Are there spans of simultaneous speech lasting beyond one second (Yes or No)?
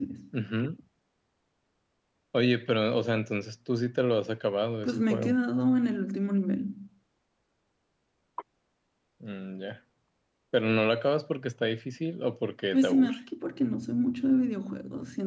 No